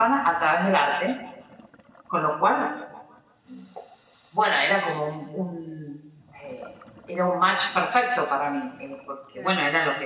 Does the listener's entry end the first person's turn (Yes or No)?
No